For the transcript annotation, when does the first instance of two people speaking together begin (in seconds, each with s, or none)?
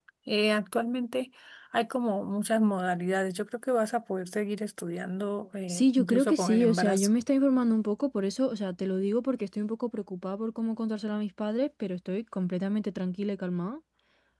5.7 s